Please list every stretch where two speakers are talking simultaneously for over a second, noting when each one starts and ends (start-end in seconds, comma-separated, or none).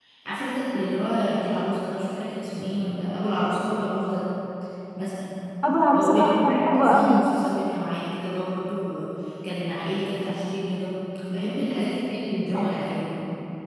6.0-7.2